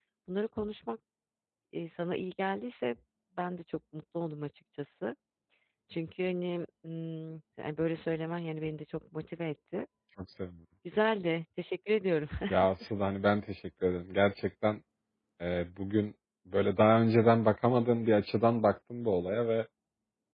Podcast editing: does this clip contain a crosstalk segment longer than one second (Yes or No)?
No